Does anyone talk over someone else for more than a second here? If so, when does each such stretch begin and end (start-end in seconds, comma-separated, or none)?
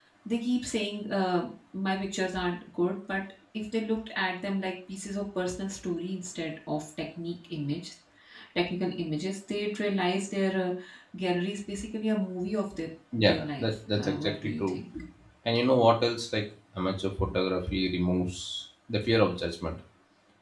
13.2-14.8